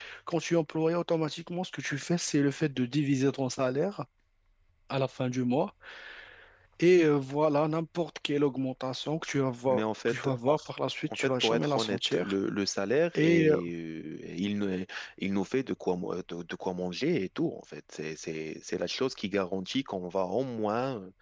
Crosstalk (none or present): present